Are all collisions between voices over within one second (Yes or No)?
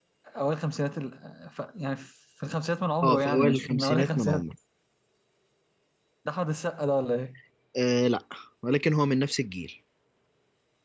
No